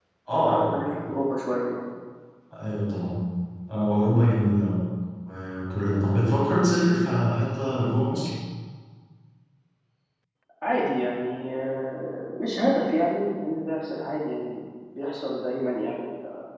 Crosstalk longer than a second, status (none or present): none